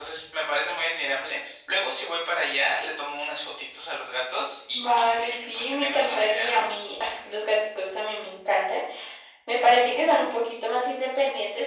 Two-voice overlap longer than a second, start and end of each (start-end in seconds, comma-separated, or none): 4.7-6.6